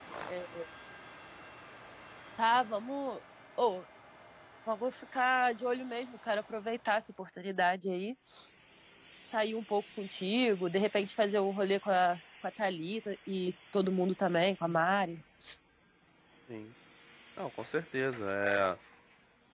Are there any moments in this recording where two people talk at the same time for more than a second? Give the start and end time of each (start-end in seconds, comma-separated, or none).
none